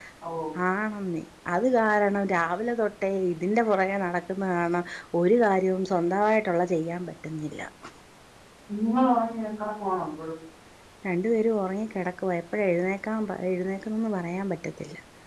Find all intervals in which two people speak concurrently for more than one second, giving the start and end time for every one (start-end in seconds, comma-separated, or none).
none